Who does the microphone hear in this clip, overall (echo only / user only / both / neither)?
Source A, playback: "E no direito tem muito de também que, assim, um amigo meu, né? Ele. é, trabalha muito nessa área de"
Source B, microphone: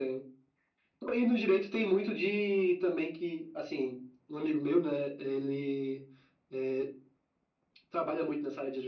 echo only